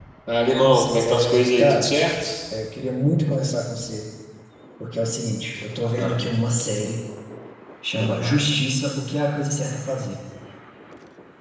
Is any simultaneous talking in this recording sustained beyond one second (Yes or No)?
Yes